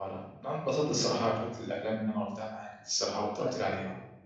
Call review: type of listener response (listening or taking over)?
taking over